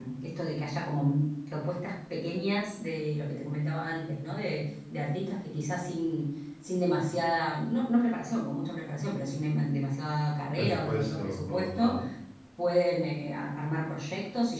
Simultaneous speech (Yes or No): Yes